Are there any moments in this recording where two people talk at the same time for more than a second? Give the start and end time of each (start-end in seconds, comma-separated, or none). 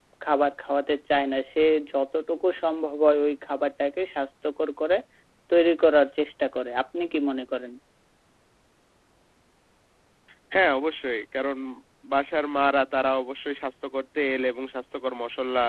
none